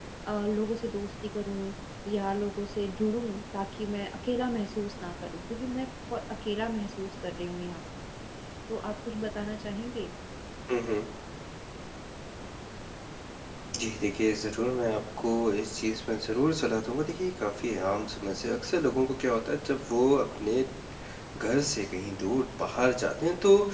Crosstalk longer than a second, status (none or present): none